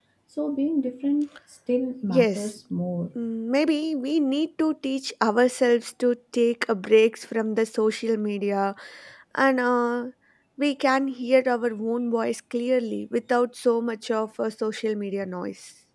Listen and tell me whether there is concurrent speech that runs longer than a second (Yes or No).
No